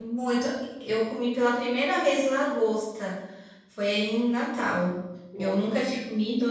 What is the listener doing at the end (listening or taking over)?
listening